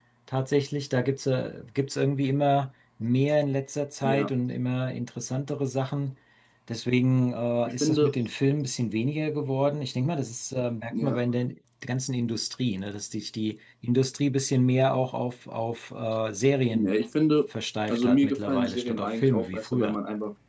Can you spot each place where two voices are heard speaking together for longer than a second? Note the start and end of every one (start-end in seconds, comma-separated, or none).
17.9-20.0